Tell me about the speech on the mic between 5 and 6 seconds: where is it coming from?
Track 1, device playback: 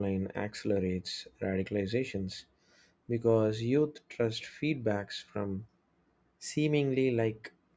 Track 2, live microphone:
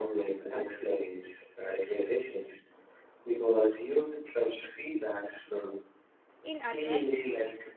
echo only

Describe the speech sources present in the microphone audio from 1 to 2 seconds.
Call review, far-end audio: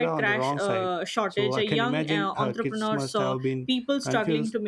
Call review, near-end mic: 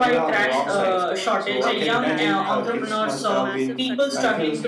both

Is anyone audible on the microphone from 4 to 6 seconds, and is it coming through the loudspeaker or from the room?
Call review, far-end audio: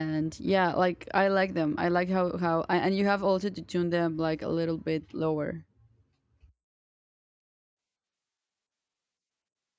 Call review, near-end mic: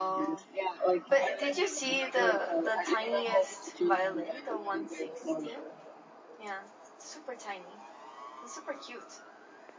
both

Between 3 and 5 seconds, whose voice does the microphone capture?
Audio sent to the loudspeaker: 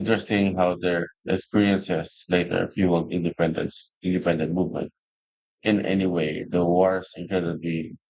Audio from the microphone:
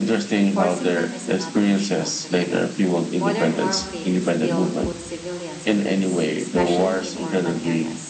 both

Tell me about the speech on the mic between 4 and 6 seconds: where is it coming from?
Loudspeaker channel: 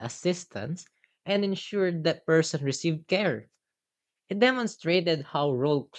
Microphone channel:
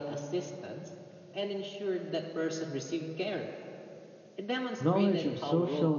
both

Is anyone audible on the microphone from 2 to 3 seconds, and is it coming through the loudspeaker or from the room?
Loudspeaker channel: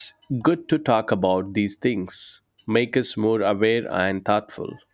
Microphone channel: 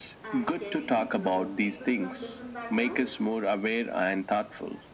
both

